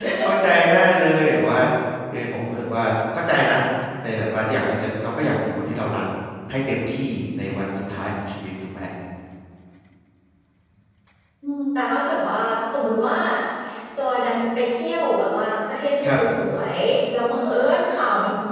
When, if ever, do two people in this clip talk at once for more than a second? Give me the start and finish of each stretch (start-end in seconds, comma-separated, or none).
none